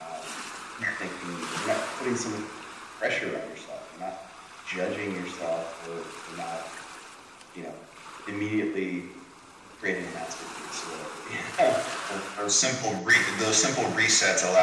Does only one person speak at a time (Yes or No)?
Yes